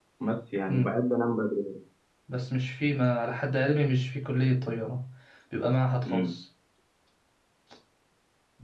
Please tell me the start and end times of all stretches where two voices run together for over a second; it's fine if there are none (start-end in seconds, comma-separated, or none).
none